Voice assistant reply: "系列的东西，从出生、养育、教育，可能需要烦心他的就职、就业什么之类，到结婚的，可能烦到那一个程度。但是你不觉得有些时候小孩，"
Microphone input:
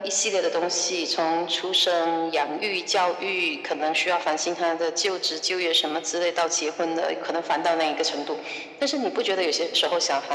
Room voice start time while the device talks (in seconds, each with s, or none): none